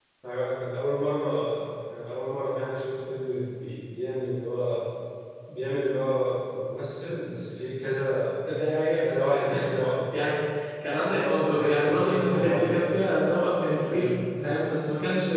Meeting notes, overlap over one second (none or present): present